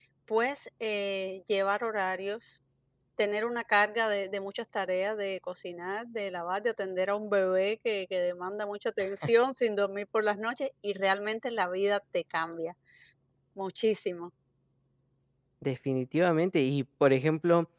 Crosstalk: none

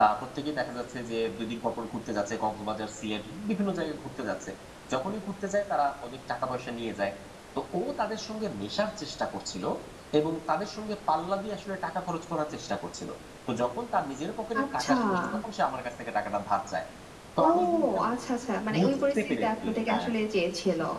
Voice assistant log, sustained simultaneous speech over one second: present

